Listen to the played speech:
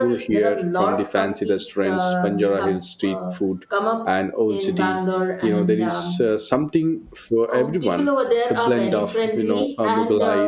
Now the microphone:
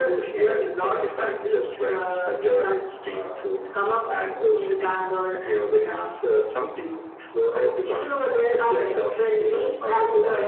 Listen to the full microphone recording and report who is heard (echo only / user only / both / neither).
echo only